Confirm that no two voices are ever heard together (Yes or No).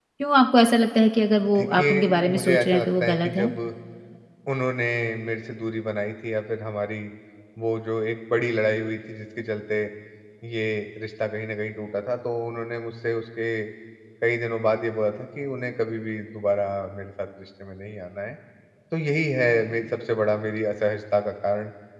No